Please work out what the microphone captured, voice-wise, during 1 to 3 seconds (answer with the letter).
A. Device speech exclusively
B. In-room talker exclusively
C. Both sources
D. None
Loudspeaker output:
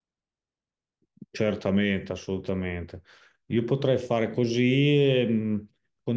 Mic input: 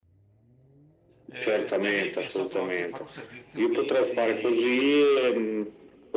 C